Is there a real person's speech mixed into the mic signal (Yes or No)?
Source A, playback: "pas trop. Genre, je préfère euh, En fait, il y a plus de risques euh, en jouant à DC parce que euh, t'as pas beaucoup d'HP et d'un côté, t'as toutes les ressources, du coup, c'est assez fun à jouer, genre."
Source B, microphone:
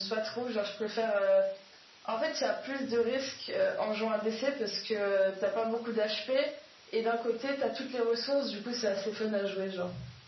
No